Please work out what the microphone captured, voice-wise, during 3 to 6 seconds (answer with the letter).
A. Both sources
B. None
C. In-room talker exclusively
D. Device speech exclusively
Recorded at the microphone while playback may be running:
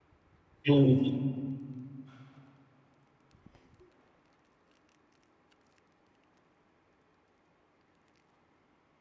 B